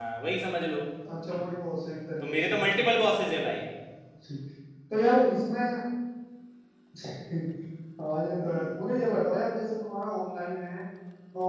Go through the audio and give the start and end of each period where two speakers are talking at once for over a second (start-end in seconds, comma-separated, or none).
none